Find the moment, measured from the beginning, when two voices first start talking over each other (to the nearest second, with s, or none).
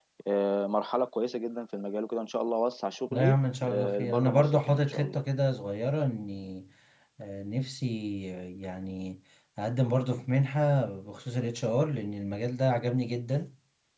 3 s